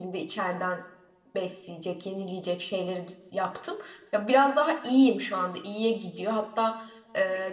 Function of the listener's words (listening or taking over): listening